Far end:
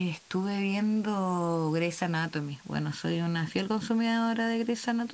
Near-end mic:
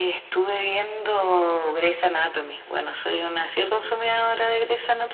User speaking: No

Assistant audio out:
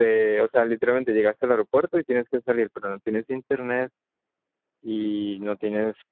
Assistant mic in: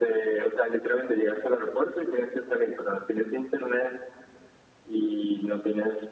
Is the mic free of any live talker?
Yes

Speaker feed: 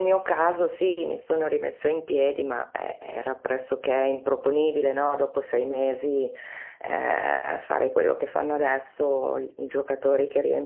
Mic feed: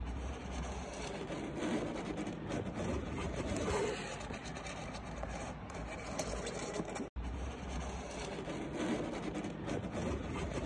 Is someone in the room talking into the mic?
No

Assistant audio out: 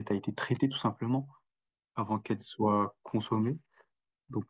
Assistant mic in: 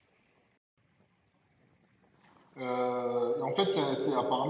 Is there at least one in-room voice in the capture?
Yes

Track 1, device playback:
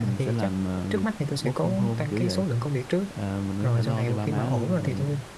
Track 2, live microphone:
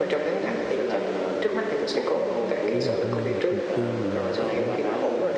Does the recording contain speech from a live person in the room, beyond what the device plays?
Yes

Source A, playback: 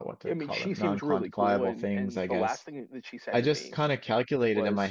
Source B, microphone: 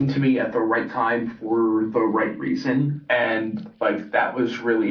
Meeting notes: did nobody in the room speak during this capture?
No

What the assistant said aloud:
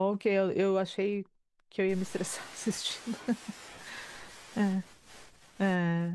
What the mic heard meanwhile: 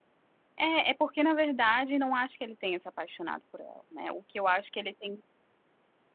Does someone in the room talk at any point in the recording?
Yes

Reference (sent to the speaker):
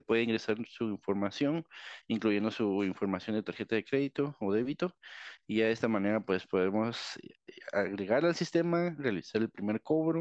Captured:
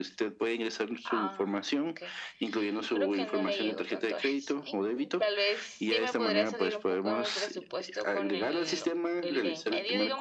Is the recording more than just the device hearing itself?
Yes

